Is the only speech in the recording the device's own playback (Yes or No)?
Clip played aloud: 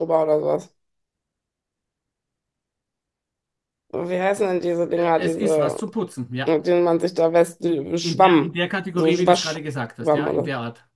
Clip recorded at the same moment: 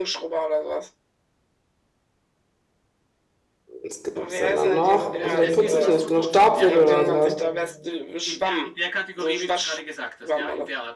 No